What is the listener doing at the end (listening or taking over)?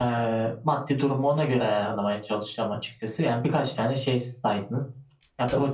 listening